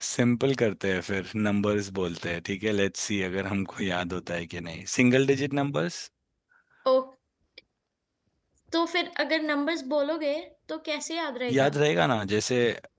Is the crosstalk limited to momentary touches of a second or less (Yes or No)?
Yes